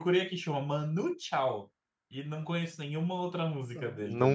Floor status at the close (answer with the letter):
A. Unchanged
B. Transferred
B